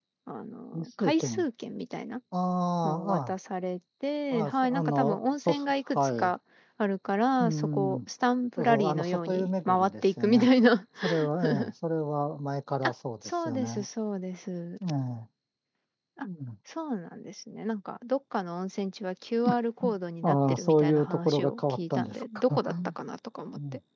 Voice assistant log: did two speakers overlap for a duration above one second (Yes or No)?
Yes